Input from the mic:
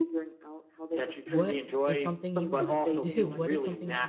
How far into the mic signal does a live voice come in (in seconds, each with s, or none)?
1.3 s